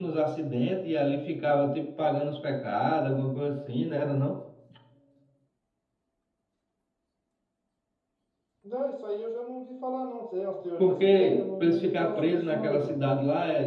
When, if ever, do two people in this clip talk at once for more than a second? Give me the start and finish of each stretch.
10.8-13.0

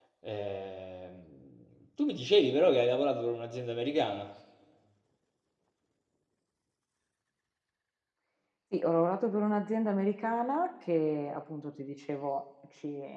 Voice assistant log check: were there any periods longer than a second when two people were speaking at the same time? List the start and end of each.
none

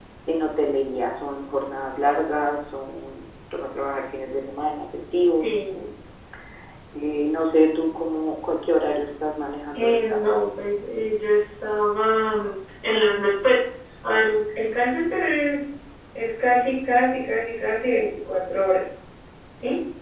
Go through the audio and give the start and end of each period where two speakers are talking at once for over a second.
none

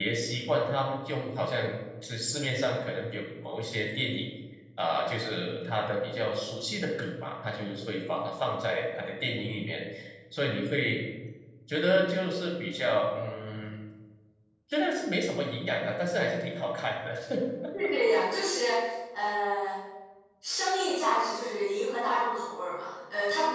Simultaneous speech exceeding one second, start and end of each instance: none

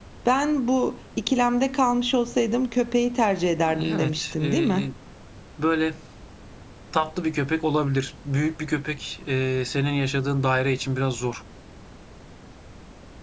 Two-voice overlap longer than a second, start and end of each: 3.7-4.9

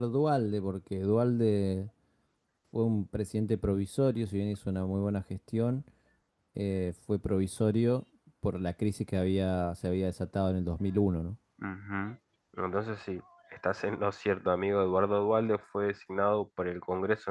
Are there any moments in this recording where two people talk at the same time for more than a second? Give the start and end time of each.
none

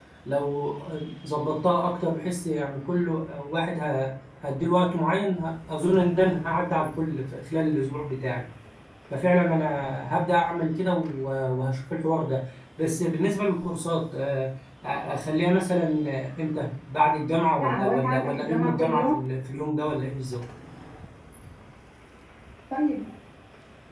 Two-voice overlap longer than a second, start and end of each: 17.6-19.2

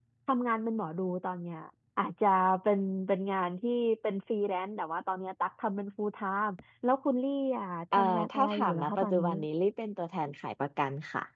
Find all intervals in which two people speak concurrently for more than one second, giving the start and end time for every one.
7.9-9.3

